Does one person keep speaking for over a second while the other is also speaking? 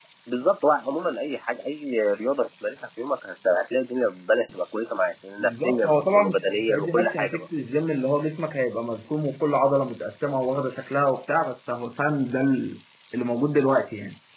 Yes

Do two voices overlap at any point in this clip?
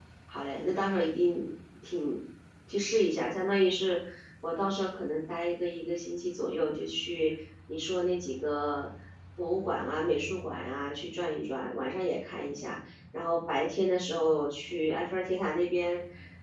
No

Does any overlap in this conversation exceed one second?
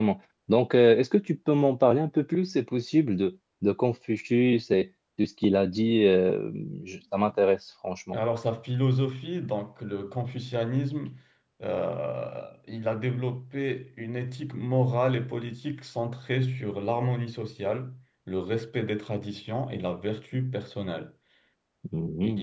No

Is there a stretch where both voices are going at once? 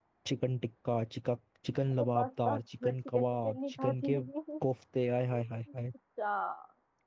Yes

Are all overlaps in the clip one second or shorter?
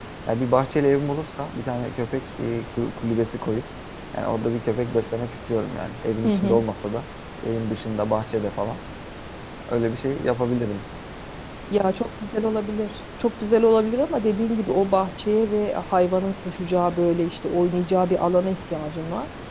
Yes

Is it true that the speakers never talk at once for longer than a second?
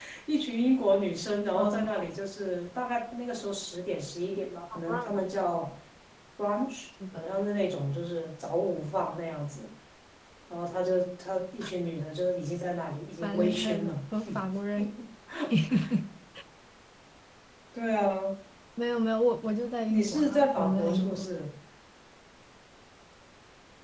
No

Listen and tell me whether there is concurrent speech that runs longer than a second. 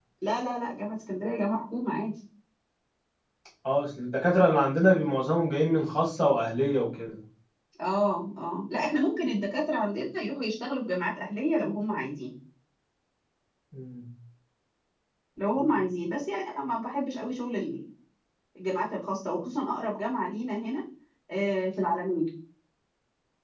No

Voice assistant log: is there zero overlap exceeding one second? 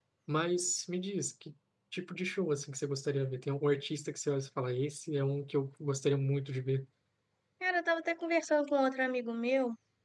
Yes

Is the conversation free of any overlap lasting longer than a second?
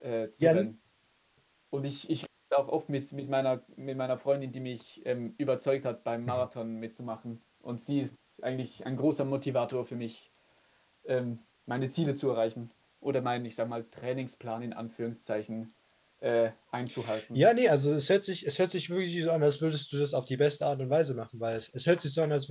Yes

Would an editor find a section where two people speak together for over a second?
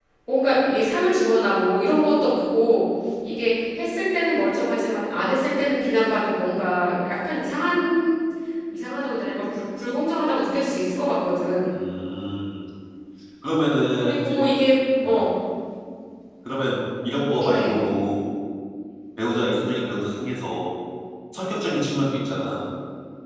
No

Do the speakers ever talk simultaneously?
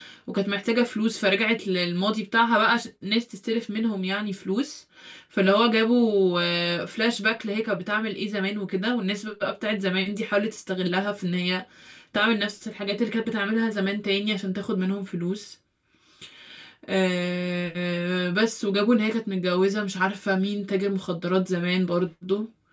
No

